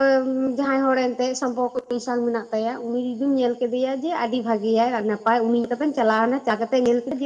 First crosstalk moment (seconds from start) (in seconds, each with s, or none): none